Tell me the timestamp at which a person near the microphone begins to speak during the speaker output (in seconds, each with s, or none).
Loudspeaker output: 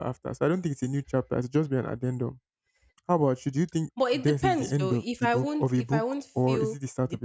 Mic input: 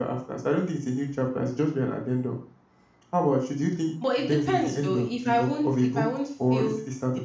none